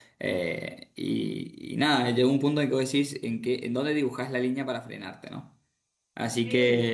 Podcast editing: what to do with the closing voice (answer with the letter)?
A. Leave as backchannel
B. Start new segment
A